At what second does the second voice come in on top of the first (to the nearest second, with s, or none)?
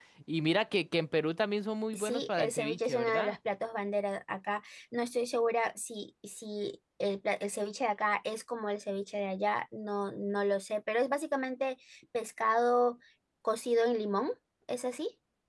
2 s